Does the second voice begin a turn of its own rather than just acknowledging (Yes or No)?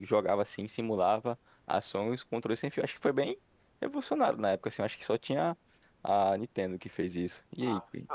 Yes